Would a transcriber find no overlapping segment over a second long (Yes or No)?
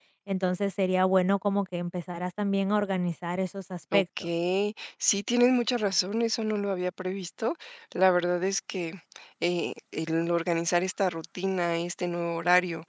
Yes